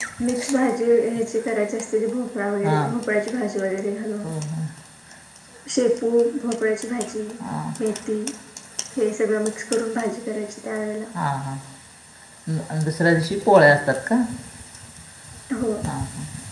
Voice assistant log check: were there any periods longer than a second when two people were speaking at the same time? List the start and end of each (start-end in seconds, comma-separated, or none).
none